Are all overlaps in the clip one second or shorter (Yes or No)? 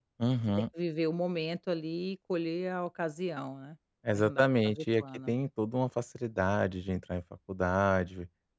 No